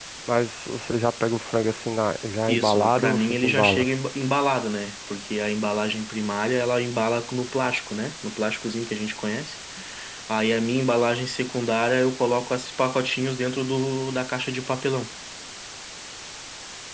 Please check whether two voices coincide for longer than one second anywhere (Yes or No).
Yes